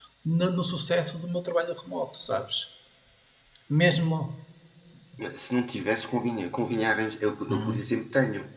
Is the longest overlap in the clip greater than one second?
No

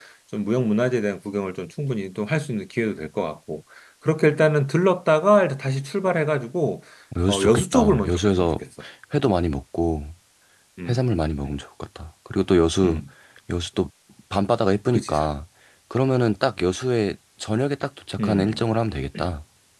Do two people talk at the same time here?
Yes, from 7.3 s

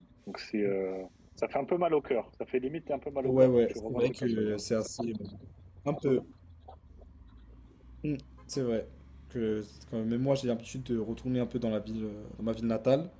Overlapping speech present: Yes, from 3.2 s

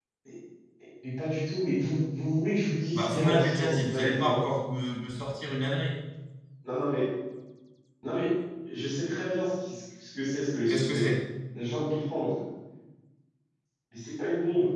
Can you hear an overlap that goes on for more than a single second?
Yes, from 2.9 s

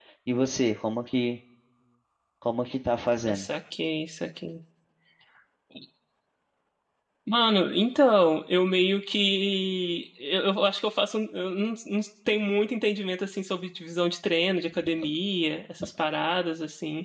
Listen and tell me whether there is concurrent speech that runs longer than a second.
No

